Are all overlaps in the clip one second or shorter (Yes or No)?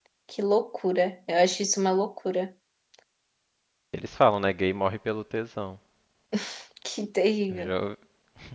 Yes